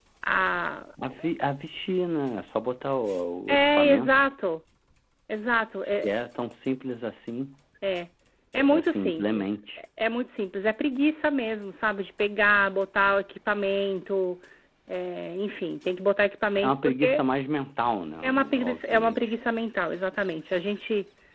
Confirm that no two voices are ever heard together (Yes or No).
No